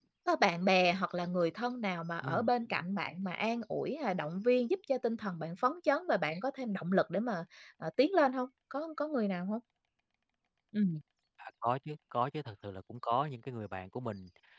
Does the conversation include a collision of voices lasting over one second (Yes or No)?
No